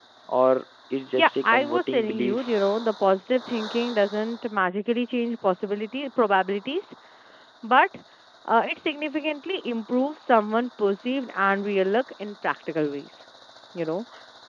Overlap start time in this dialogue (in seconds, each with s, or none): 1.1 s